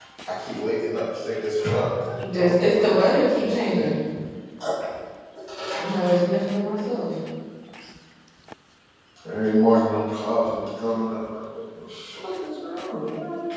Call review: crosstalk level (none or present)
present